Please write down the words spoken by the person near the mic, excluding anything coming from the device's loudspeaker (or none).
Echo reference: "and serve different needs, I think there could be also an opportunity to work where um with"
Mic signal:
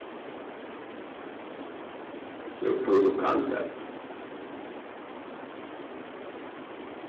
So proof of concept.